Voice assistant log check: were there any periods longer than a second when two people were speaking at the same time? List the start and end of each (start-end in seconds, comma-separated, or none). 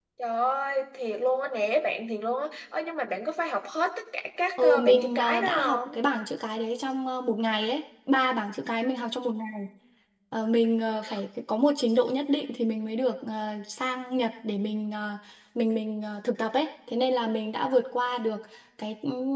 4.6-6.0